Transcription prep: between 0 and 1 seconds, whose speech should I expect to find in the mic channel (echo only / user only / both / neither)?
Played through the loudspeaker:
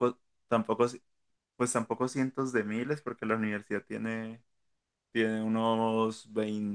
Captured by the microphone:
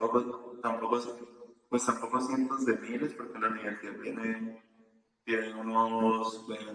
echo only